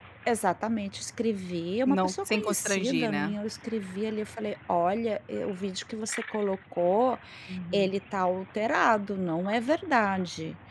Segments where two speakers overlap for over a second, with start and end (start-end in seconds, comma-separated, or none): 1.9-3.3